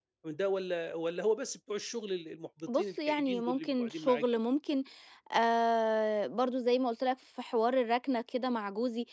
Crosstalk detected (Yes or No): Yes